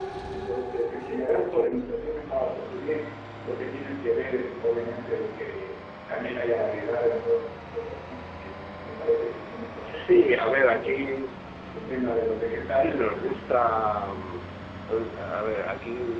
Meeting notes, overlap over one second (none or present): present